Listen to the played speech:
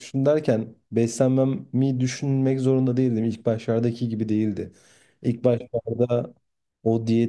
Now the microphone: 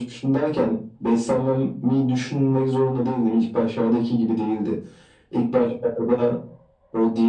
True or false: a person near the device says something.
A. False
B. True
A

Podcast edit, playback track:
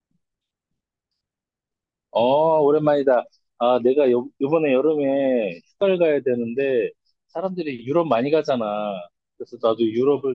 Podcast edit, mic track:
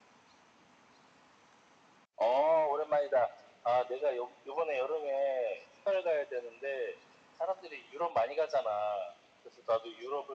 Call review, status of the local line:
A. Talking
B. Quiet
B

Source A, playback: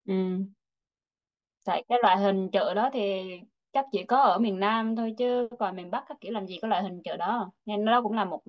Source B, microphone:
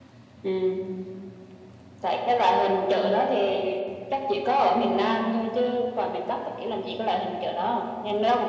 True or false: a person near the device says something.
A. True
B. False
B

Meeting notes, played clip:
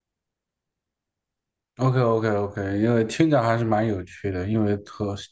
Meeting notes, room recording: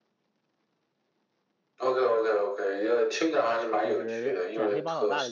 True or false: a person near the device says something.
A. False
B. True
B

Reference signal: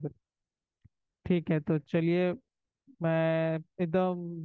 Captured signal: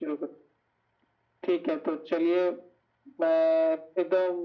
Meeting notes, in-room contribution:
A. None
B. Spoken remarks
A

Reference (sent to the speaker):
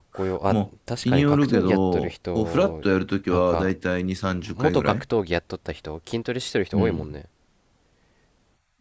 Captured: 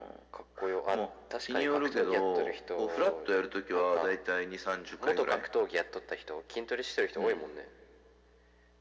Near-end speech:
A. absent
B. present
A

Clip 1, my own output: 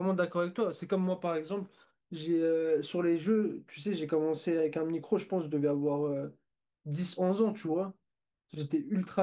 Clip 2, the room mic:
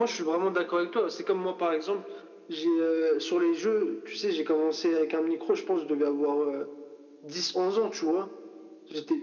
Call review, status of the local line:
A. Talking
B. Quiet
B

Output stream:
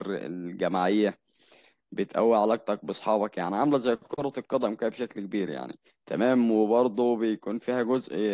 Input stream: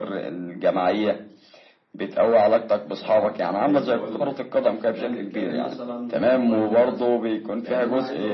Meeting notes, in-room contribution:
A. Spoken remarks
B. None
A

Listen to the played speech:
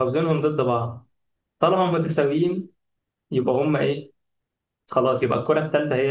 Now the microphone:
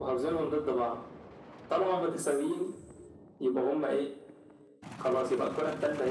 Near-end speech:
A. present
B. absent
B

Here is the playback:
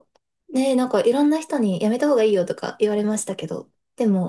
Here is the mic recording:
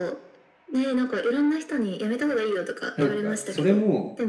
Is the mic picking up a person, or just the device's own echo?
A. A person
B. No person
A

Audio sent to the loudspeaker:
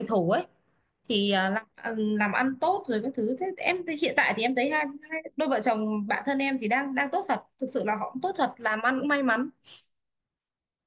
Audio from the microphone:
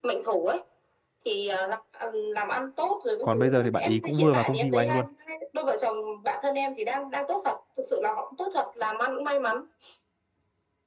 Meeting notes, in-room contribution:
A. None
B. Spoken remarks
B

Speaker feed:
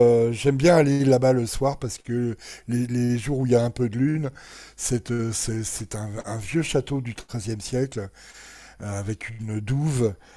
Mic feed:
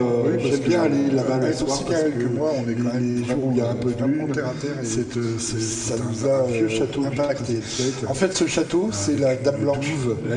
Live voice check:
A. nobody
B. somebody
B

